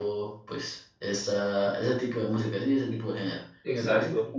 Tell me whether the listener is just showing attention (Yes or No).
No